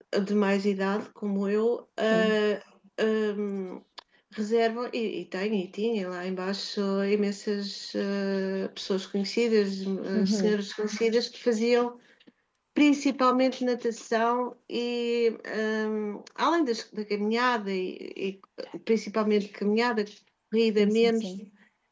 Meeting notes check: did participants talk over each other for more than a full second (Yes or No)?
No